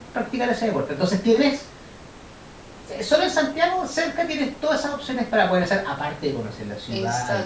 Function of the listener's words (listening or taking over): taking over